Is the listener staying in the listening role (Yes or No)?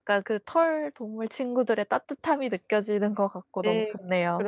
No